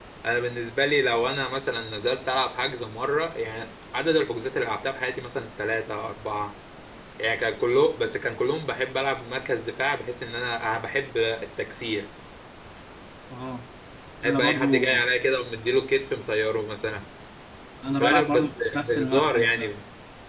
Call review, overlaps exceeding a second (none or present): present